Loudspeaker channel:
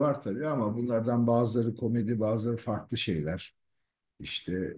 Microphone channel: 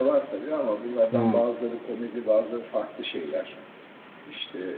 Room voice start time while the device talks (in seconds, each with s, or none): 1.1 s